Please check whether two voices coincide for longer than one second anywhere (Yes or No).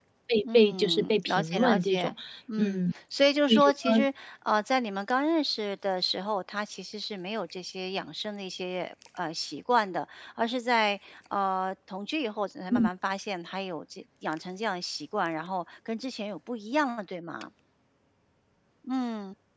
Yes